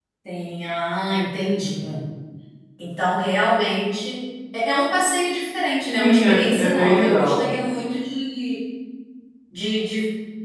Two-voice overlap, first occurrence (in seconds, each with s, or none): 5.9 s